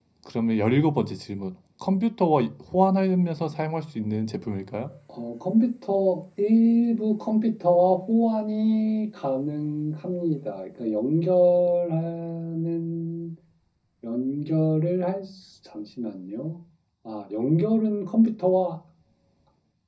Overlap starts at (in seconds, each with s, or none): none